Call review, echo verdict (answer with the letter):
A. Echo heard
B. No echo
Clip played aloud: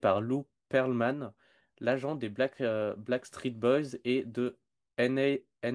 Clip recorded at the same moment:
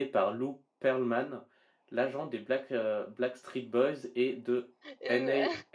A